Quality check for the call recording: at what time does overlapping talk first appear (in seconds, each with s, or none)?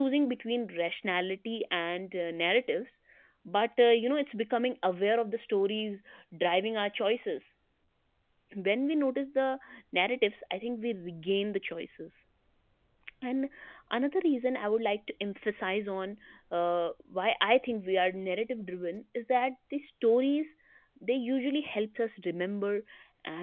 none